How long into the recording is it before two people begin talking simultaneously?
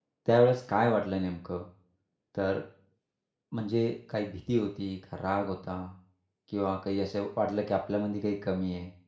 none

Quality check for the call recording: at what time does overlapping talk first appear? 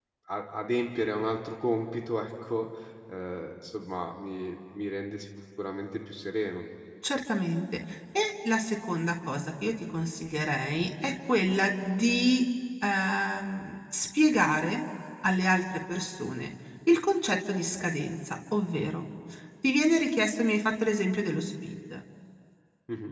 none

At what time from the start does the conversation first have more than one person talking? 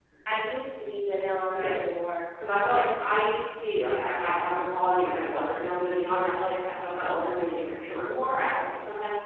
none

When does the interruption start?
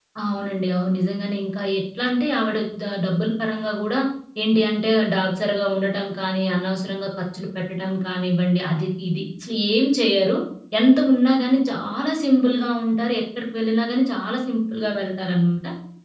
none

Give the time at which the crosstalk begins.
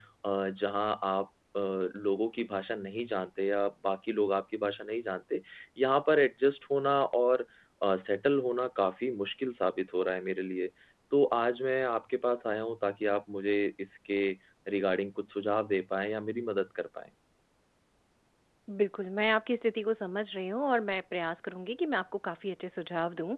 none

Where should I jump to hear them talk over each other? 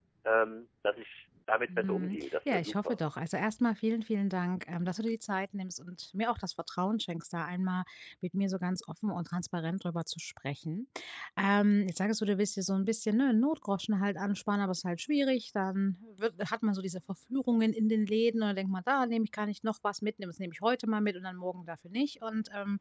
2 s

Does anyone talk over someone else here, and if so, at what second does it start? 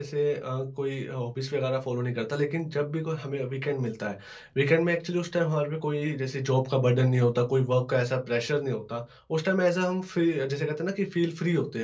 none

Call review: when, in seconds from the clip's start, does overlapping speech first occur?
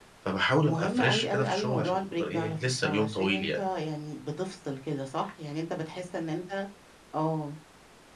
1 s

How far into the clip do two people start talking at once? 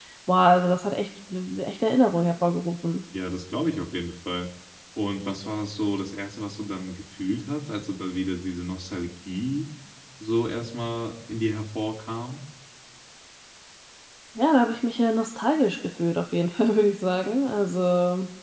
none

